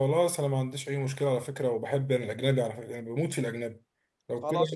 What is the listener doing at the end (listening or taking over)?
taking over